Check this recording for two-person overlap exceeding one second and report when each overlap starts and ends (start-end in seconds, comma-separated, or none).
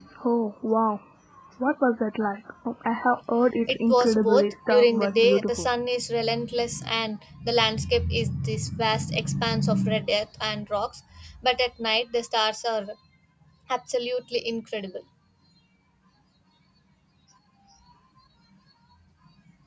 3.7-5.7